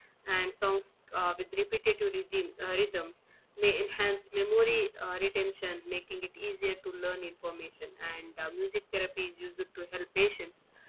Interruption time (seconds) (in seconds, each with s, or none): none